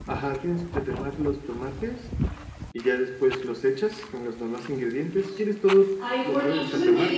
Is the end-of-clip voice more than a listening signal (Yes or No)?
Yes